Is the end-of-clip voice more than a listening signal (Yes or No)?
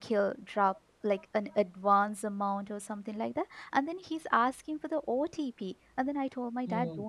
No